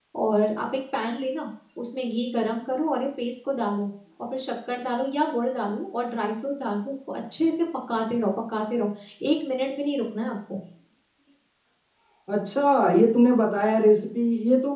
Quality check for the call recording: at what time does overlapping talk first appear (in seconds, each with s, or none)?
none